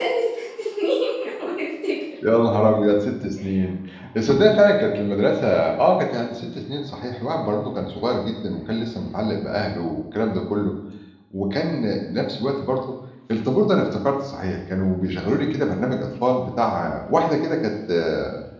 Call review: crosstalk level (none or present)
none